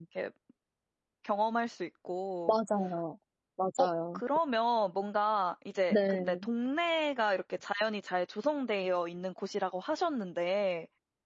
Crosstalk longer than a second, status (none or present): none